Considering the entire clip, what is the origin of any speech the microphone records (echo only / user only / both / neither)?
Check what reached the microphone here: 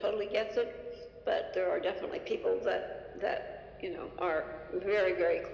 echo only